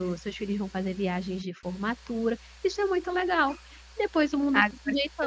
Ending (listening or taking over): taking over